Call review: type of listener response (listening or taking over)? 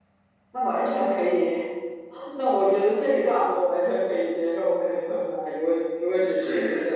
taking over